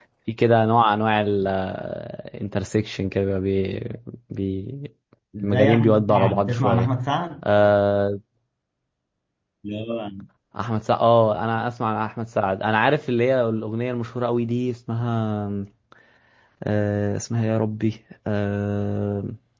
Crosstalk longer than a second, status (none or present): present